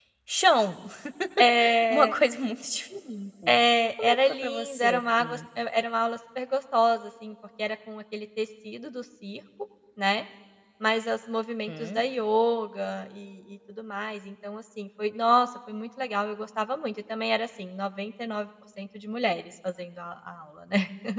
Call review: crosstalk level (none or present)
present